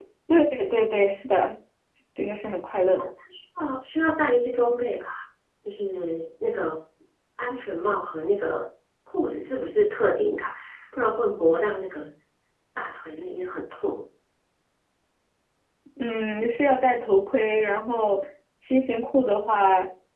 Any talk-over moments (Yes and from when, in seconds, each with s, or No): No